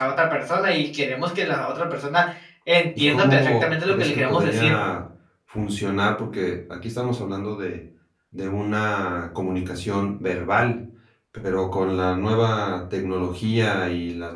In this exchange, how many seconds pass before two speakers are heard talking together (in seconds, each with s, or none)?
3.1 s